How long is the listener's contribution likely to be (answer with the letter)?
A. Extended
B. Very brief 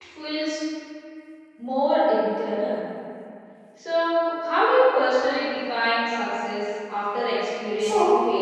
A